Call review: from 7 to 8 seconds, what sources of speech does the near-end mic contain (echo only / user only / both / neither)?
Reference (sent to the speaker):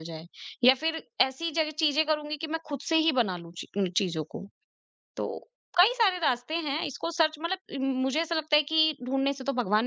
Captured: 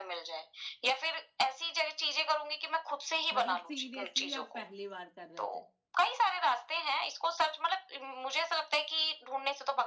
echo only